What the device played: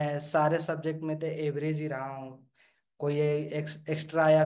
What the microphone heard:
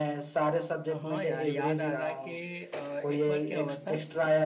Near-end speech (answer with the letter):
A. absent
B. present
B